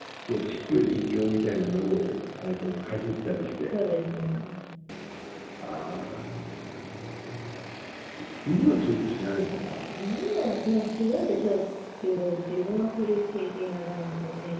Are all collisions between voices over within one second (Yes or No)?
Yes